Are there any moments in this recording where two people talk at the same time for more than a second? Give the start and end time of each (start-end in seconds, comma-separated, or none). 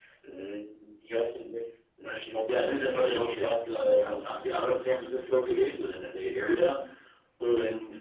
2.5-4.5